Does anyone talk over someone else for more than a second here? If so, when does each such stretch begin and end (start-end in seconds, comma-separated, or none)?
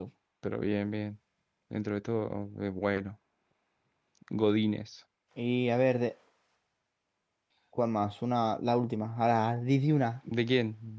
none